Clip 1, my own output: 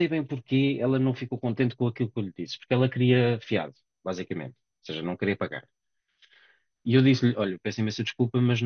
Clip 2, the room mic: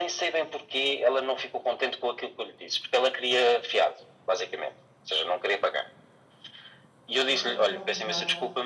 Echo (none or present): present